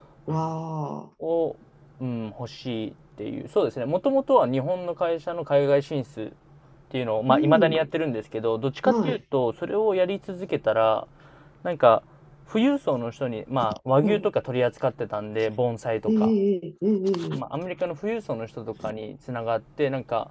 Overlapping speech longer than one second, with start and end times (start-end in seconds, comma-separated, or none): none